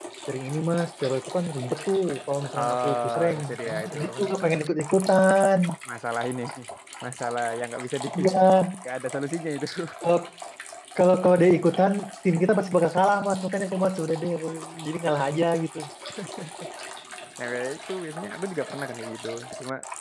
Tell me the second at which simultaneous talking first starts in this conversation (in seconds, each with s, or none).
2.6 s